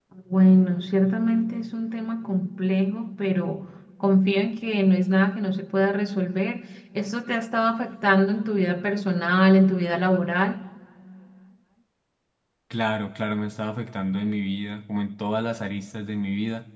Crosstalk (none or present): none